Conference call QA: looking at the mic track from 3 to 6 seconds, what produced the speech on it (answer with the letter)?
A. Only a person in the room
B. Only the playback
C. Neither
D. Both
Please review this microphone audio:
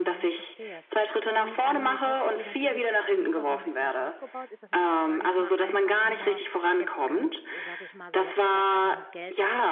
D